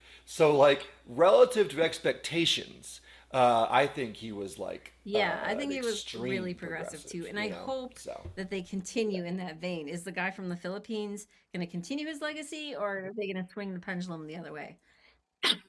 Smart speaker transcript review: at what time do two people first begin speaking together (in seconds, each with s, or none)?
5.1 s